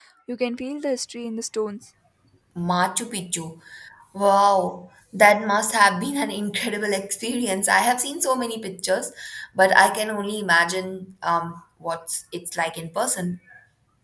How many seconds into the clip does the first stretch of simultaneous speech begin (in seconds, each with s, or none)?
none